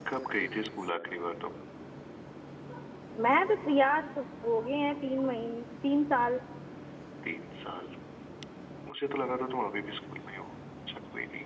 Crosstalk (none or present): none